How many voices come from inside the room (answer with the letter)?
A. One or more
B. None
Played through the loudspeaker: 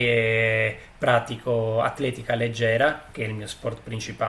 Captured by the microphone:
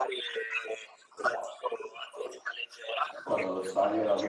A